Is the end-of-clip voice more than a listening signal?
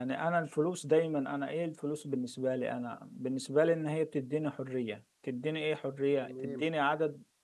No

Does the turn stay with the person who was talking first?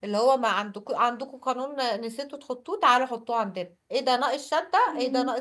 Yes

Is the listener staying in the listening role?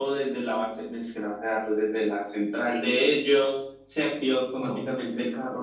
Yes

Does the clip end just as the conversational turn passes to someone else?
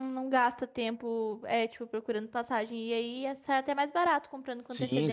Yes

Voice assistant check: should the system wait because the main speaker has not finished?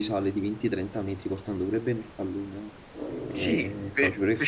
No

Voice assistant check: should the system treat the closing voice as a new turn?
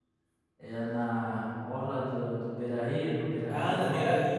Yes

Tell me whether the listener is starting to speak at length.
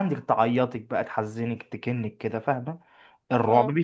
No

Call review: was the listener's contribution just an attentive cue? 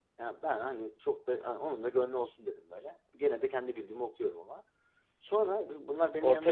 Yes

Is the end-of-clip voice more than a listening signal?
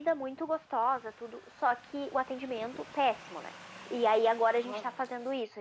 No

